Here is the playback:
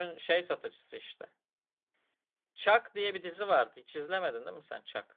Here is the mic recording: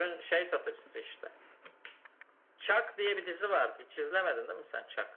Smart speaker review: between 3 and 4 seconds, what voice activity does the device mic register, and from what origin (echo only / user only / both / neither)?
echo only